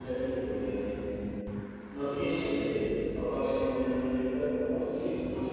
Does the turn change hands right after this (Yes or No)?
Yes